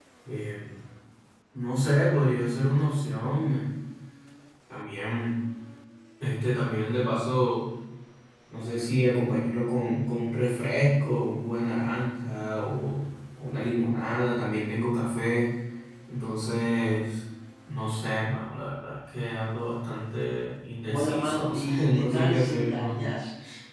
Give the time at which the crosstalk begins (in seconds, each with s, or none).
20.9 s